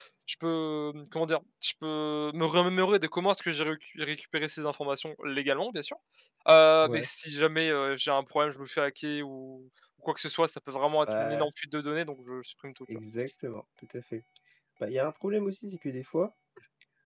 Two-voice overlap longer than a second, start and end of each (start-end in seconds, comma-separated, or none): none